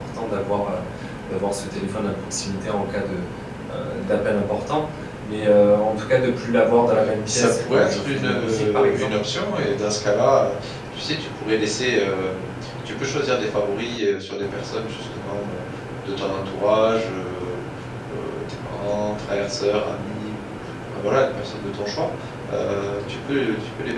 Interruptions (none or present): present